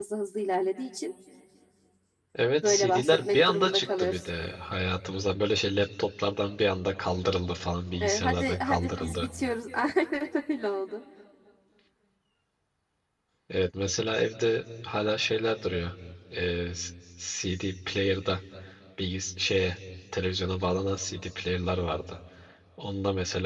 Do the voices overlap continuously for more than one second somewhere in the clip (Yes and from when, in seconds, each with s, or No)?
Yes, from 2.6 s